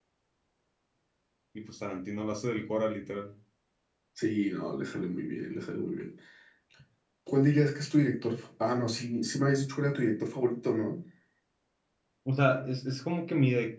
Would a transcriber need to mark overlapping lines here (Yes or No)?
No